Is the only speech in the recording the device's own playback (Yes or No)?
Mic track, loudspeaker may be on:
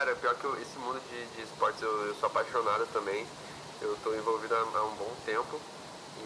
Yes